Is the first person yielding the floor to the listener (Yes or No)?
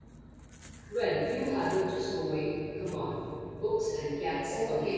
Yes